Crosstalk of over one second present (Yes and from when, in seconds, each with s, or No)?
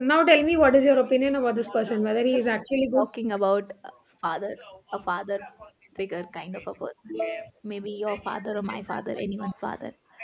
No